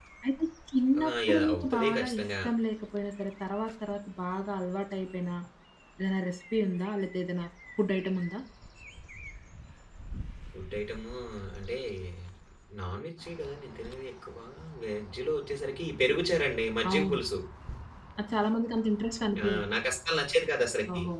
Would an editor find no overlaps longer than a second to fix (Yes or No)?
No